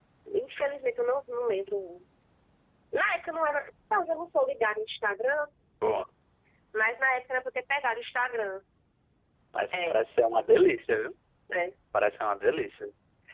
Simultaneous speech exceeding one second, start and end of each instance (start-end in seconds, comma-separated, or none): none